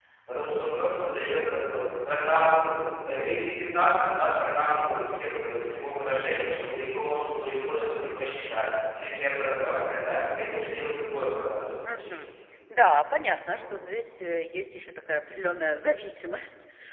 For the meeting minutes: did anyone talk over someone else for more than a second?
No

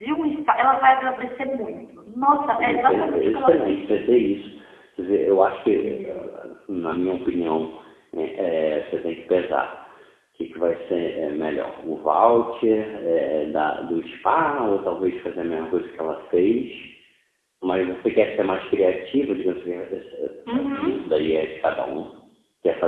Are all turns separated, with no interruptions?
No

